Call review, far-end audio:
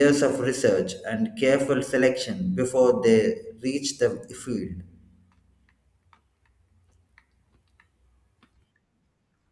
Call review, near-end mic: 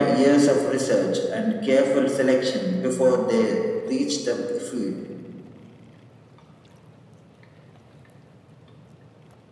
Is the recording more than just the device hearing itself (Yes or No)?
No